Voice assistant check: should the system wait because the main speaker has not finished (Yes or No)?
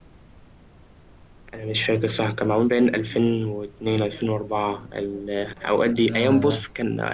Yes